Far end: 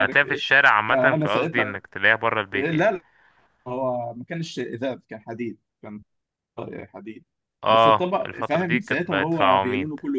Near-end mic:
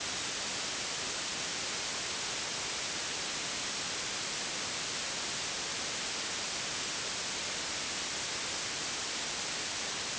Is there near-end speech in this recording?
No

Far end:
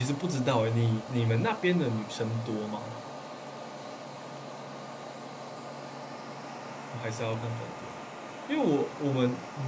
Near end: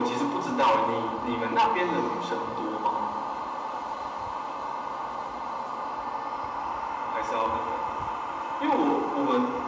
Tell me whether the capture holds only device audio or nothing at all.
Yes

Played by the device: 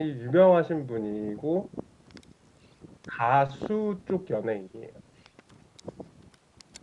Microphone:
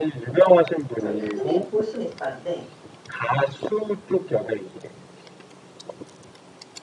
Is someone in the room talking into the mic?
Yes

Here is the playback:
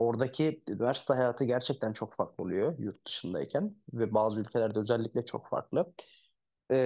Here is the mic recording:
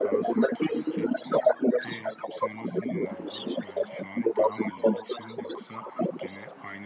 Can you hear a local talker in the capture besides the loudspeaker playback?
Yes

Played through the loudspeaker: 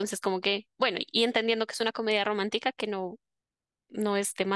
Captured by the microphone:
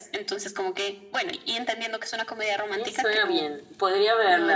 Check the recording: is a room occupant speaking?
Yes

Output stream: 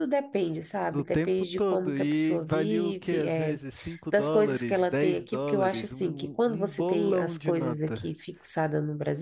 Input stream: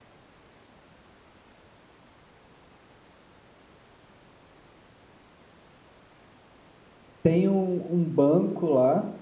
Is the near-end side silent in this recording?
No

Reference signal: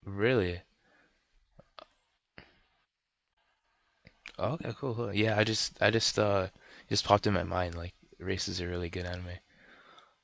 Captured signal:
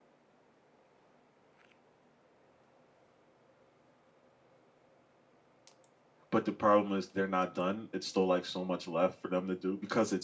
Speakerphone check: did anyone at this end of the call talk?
Yes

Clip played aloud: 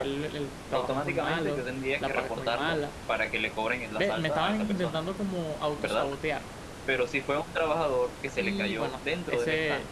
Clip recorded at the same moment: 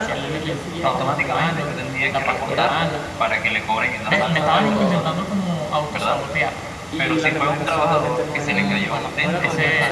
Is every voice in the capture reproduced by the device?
No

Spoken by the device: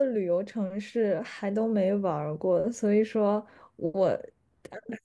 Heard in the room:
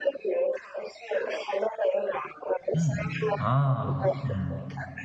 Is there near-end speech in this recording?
Yes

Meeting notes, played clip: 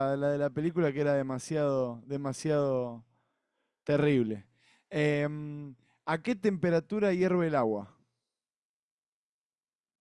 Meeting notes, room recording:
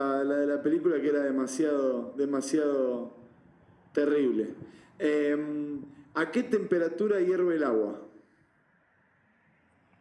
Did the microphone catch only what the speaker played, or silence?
Yes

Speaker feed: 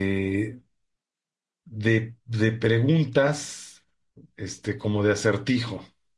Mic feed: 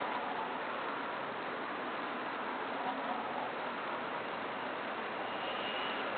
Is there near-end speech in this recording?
No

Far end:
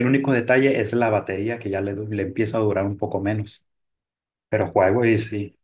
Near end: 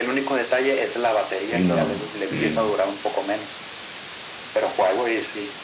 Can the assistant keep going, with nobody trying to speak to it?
No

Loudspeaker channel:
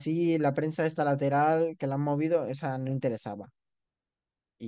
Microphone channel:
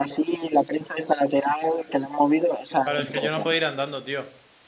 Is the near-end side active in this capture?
Yes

